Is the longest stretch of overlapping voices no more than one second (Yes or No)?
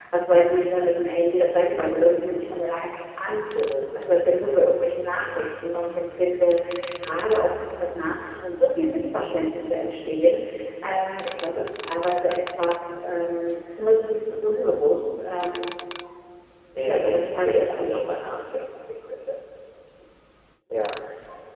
No